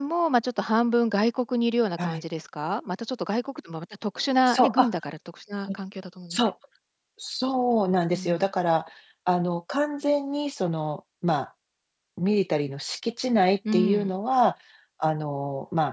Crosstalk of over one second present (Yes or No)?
No